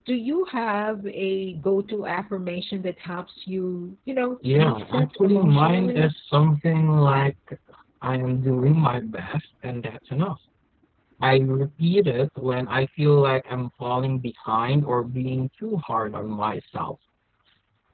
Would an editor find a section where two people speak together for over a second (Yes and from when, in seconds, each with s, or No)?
Yes, from 4.4 s